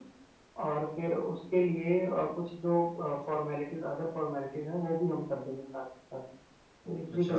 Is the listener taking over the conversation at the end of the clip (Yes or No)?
Yes